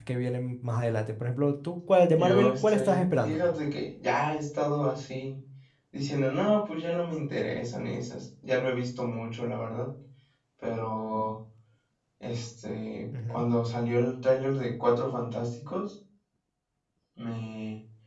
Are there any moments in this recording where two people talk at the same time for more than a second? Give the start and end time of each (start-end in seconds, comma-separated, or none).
2.1-3.4